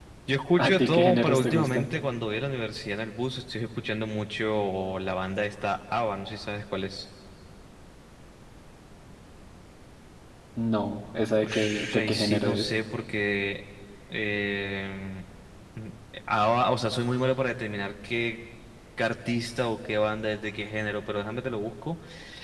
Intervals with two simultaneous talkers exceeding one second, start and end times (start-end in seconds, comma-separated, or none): 0.6-1.9, 11.4-12.7